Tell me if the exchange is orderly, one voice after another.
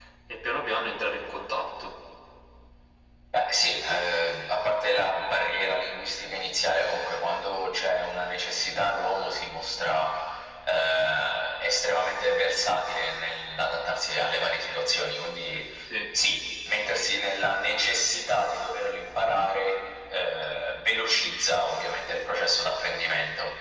Yes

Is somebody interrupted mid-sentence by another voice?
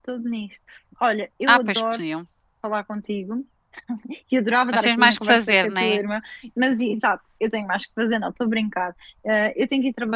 Yes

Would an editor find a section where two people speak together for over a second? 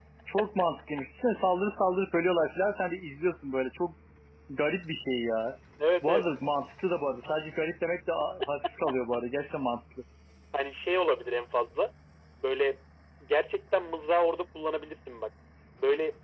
No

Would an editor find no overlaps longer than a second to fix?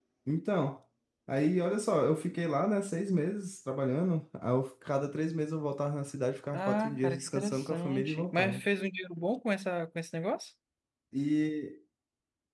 No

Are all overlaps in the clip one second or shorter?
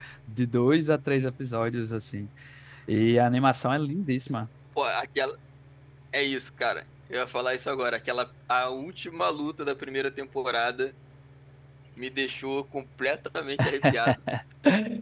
Yes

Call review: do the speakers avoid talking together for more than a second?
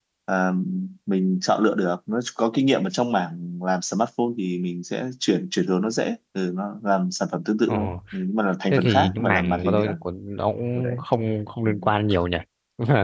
No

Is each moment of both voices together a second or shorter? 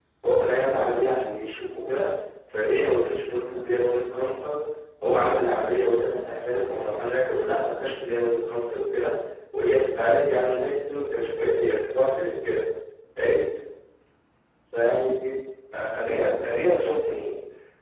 Yes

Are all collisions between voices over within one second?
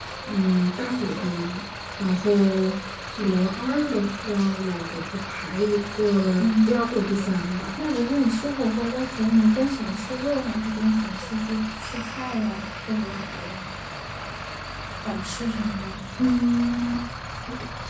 Yes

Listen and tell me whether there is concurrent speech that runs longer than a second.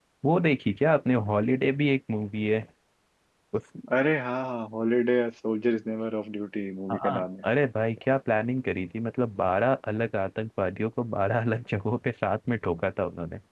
No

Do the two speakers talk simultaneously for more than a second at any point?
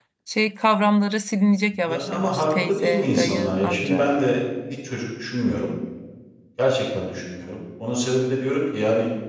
Yes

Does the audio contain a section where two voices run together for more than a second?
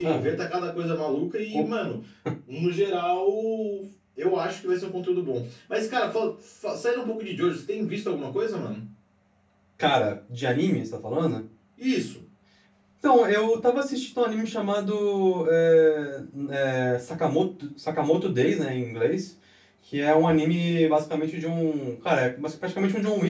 No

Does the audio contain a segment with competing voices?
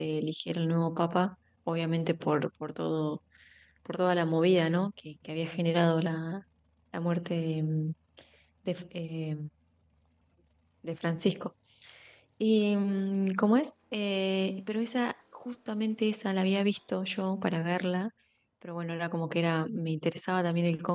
No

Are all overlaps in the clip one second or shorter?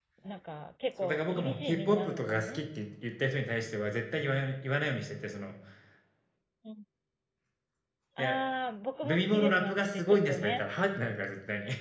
No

